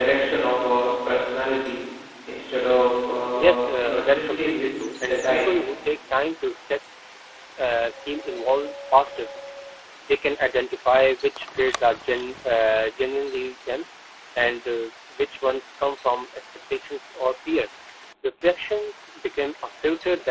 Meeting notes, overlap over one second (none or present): present